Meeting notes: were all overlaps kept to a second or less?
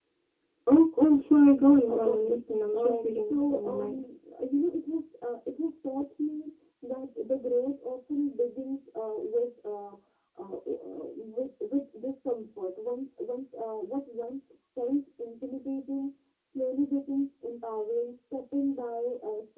No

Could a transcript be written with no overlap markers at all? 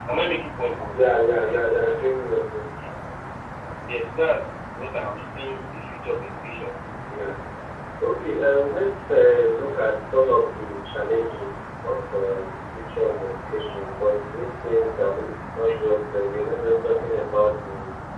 Yes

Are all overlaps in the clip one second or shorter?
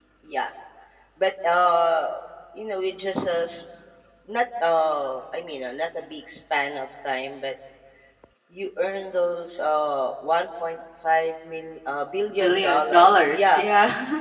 No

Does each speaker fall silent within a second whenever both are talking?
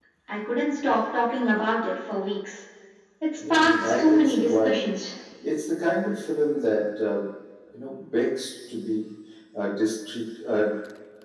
No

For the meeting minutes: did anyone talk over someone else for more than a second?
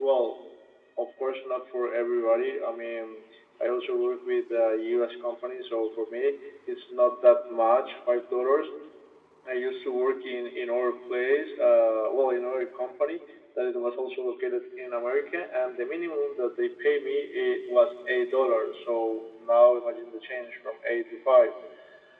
No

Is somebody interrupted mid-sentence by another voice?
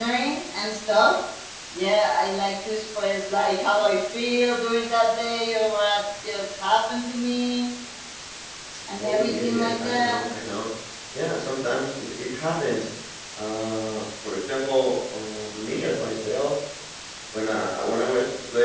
Yes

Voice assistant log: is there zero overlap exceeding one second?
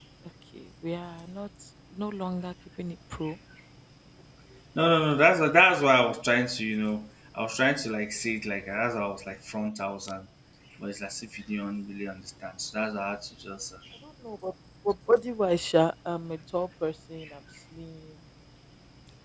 Yes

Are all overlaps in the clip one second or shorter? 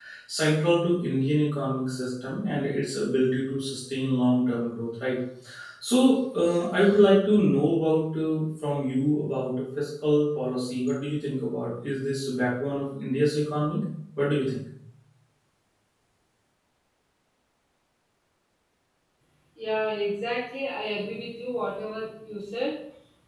Yes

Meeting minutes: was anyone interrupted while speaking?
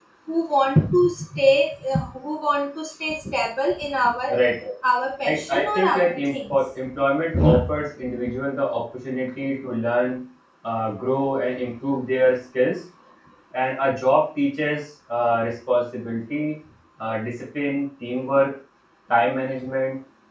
Yes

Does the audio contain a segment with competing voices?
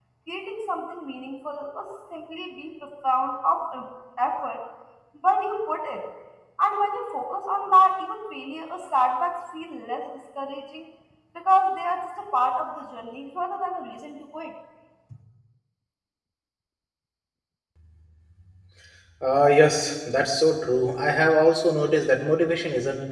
No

